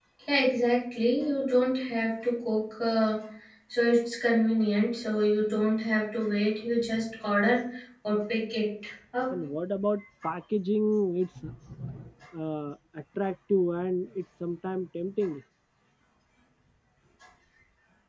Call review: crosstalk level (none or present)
none